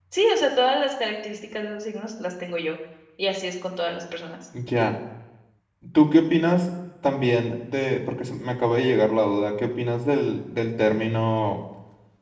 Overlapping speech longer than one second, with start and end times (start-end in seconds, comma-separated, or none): none